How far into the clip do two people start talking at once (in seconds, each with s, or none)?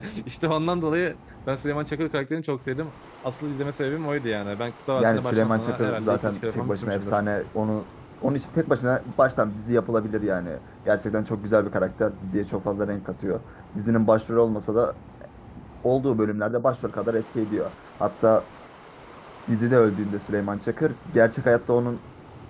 5.0 s